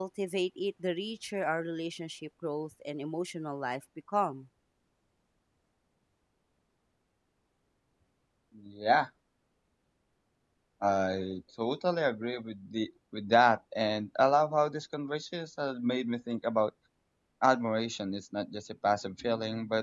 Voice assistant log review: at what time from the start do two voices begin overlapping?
none

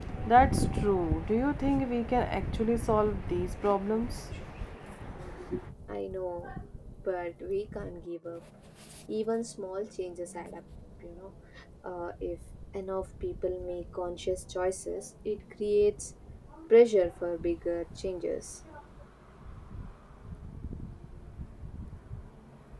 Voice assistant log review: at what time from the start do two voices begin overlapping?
none

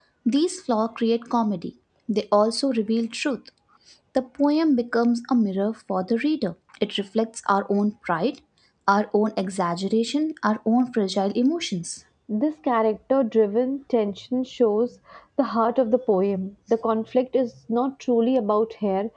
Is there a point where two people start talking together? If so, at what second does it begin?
none

